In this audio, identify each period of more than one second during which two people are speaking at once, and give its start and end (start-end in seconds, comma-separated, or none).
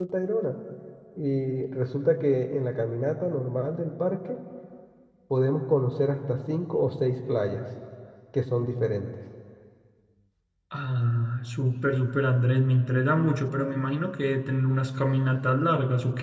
none